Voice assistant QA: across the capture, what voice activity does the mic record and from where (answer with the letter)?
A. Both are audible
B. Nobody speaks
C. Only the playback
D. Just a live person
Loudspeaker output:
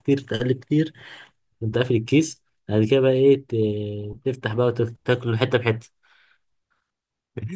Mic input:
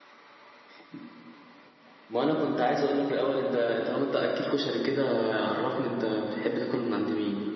D